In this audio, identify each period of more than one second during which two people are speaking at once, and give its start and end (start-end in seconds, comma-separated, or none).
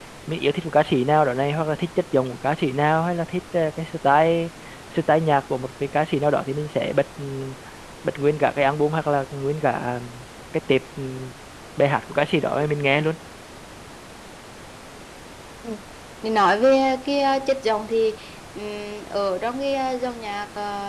none